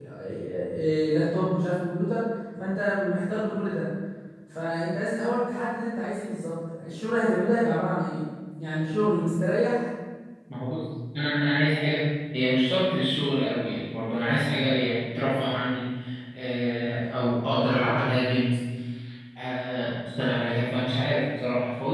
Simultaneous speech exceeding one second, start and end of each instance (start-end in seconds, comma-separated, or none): none